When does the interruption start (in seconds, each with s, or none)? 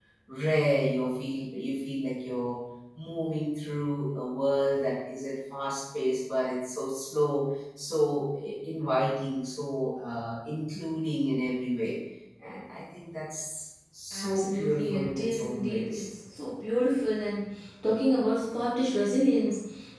14.1 s